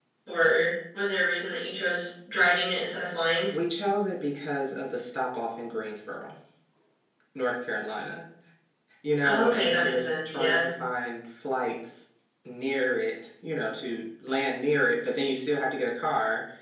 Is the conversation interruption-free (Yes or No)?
No